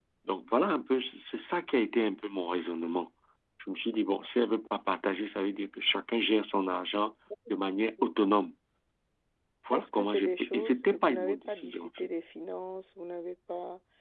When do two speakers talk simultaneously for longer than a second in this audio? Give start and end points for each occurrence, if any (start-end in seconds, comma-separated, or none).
9.7-12.1